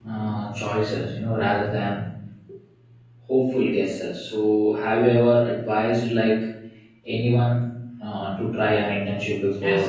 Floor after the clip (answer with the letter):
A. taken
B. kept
A